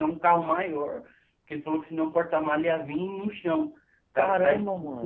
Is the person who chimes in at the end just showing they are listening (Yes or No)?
Yes